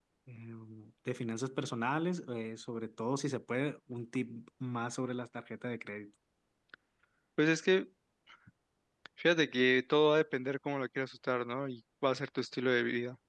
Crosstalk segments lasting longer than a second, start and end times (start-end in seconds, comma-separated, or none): none